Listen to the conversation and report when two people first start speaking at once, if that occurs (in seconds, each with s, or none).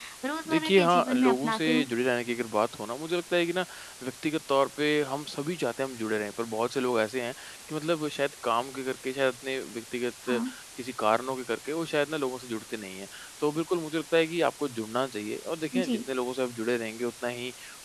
0.5 s